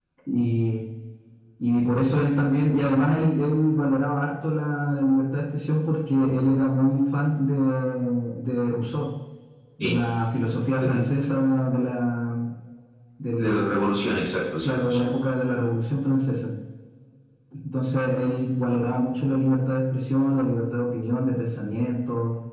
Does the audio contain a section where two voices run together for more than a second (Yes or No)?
No